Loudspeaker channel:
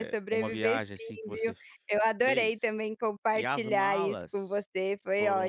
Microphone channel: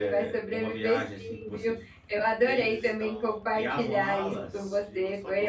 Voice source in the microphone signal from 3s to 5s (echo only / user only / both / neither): both